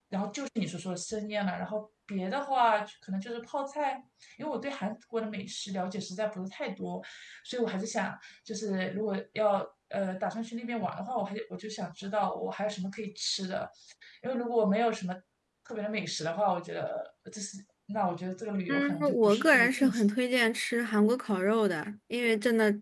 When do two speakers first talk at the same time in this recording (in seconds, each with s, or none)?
18.7 s